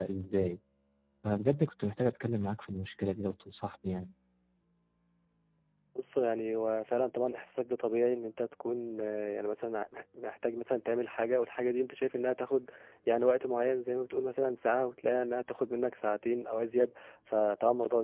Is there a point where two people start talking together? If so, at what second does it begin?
none

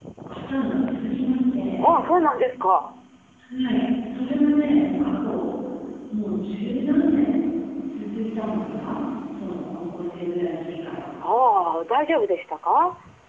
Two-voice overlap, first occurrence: none

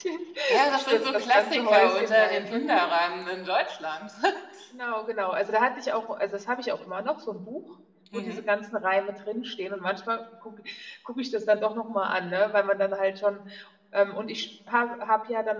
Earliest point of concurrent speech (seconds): 0.7 s

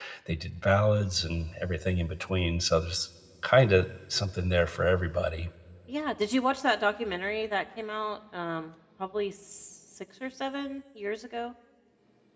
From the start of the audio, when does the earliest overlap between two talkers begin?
none

